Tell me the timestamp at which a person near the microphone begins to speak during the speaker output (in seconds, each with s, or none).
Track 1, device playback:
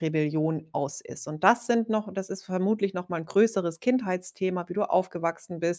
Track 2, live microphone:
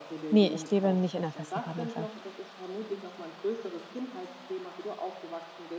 0.3 s